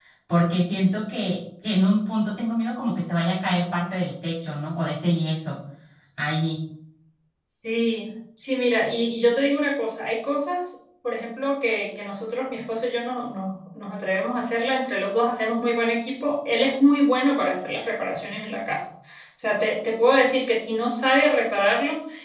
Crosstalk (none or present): none